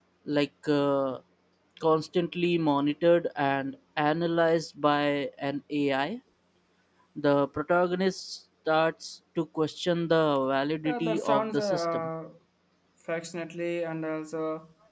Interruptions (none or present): present